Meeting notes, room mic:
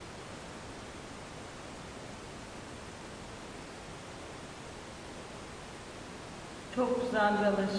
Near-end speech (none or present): present